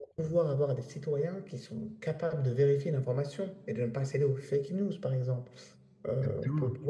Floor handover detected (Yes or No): No